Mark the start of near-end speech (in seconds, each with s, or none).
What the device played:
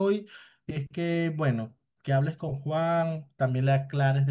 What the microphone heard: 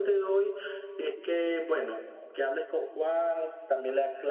none